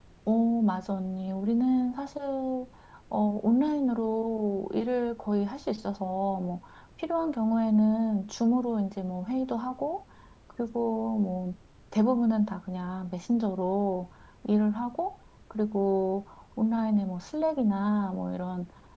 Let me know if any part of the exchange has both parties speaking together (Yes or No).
No